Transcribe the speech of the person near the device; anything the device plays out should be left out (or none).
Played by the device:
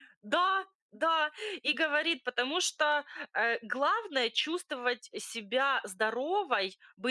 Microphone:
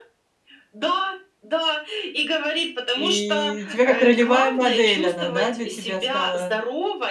И тебя как ролевая модель она, да, для тебя стала.